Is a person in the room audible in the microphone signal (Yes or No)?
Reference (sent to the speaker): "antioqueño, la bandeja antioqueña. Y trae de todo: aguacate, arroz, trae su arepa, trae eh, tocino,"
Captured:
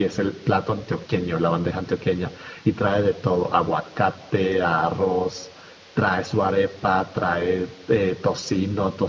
No